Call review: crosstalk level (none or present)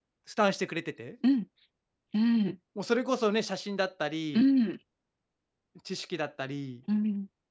none